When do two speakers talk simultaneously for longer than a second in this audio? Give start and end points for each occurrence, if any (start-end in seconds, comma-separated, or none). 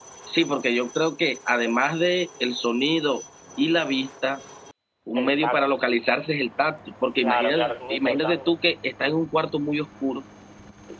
7.2-8.5